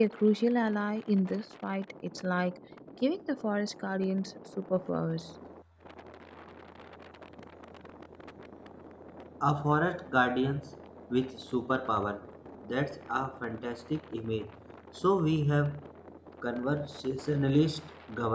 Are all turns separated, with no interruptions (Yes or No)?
Yes